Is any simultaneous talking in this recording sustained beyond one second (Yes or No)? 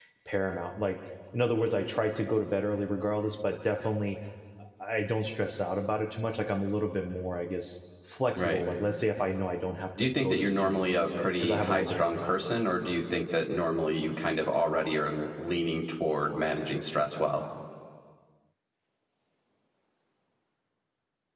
Yes